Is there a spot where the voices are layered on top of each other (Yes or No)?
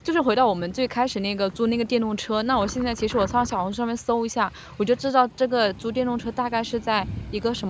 No